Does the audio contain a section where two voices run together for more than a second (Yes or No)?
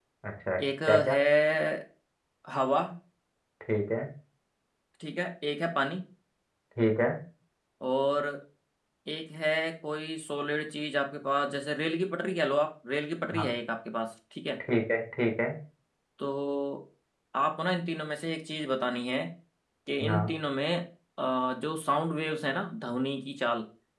No